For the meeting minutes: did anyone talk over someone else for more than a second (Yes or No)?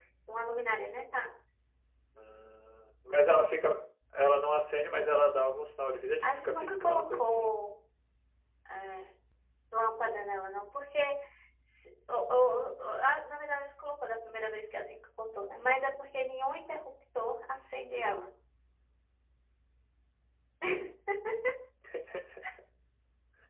Yes